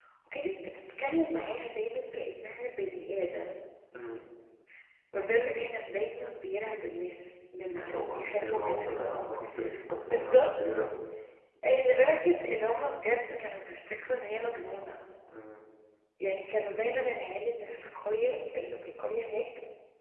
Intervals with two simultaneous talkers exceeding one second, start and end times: 7.7-9.1

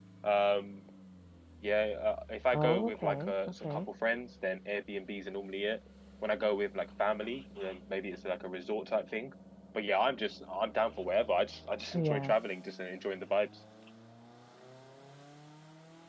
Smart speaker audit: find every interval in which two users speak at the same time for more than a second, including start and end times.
2.5-3.9

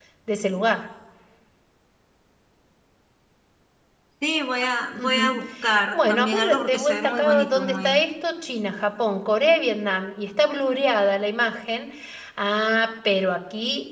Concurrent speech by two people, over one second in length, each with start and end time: 5.9-8.0

